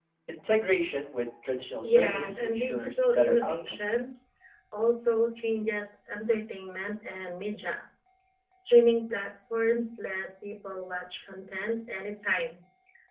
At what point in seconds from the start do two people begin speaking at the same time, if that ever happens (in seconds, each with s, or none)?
1.8 s